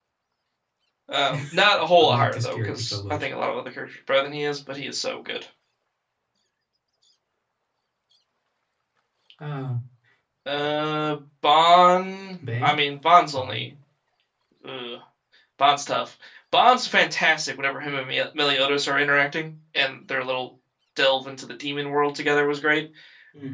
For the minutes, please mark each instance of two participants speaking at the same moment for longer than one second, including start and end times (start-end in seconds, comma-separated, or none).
2.0-3.3